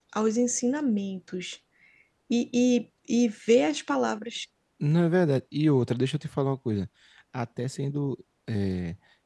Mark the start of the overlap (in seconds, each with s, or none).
none